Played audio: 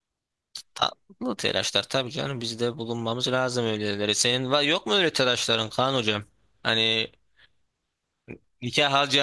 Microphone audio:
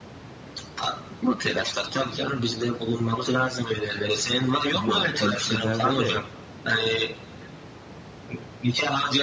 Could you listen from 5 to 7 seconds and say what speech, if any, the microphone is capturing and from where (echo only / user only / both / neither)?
both